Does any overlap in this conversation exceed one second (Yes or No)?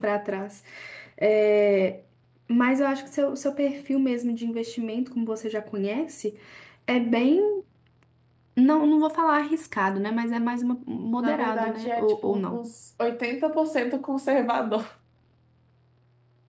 Yes